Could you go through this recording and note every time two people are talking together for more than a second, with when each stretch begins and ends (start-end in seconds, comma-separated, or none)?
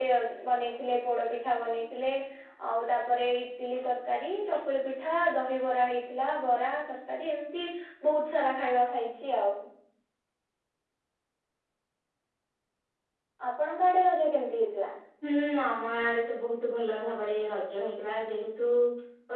none